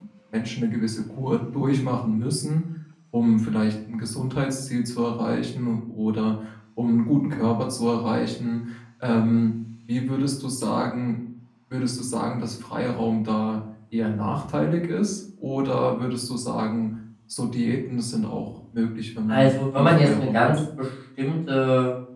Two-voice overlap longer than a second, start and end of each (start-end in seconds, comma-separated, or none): 19.3-20.6